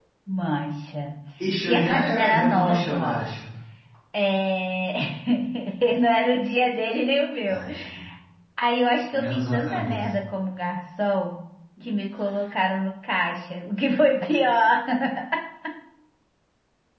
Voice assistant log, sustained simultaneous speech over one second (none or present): present